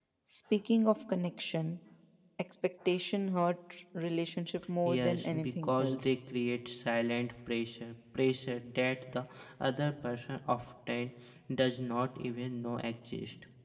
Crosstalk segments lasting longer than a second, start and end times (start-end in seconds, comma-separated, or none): 4.8-6.1